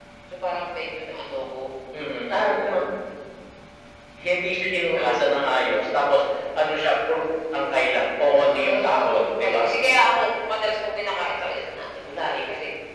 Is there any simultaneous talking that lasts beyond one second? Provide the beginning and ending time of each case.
8.3-9.7

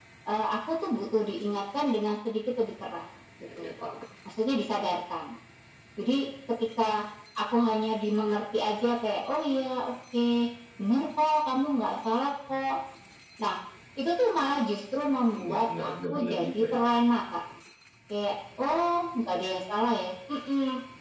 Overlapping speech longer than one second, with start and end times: 15.3-16.9

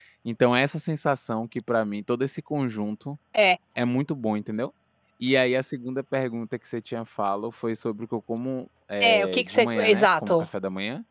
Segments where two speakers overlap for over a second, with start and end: 9.0-10.4

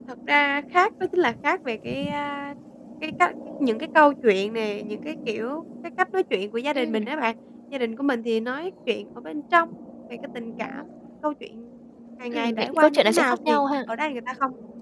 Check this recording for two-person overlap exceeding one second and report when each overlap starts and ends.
12.3-13.6

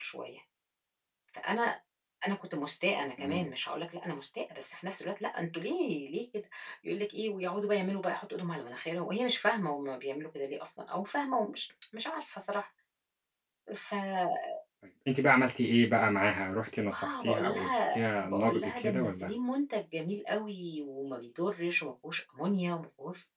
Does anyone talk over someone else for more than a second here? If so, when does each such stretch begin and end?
16.9-19.3

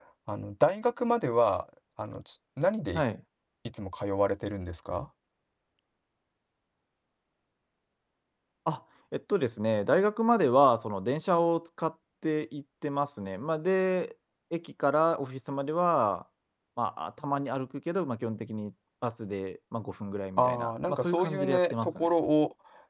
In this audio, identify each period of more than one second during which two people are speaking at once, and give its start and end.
20.4-22.1

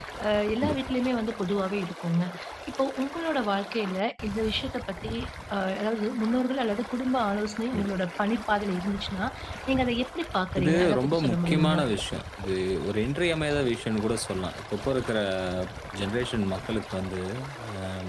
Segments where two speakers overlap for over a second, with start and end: 10.6-11.8

